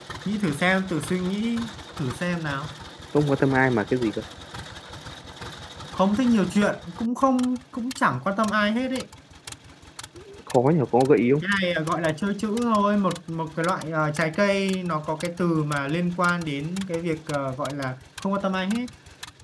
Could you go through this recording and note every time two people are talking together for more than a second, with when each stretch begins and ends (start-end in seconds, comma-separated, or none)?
none